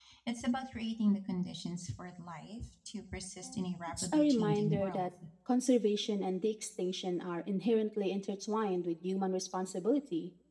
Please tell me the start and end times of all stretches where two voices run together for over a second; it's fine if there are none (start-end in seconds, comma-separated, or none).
3.6-5.1